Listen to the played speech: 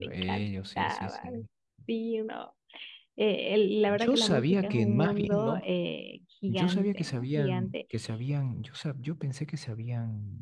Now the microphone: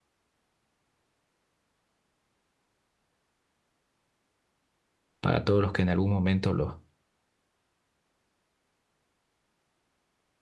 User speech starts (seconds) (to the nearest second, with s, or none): 5 s